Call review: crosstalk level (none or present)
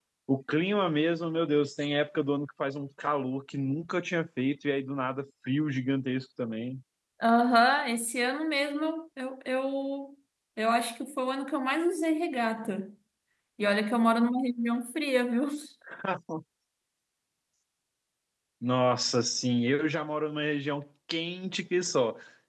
none